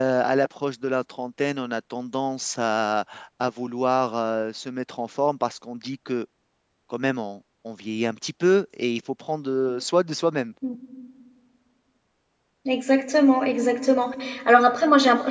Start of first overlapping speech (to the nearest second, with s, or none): none